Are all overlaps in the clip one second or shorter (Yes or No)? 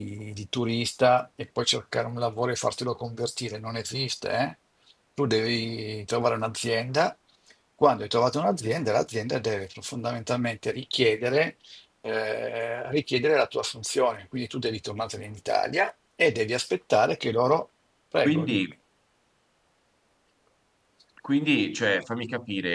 Yes